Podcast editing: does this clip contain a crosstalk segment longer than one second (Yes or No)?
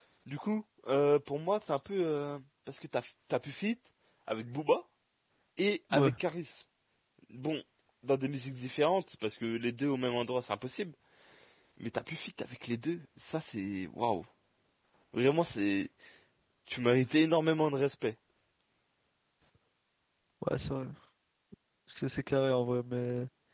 No